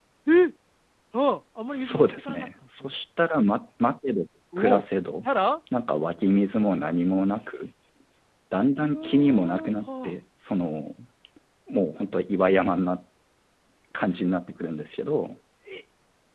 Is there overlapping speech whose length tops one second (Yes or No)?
Yes